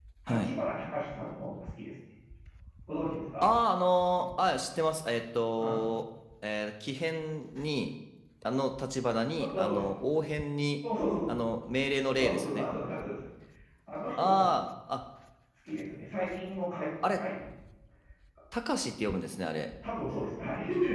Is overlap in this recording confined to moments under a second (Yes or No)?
Yes